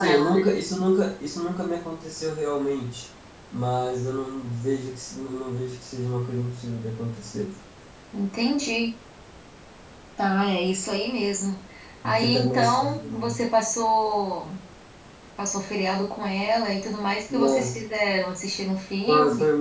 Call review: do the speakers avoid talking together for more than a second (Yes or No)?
No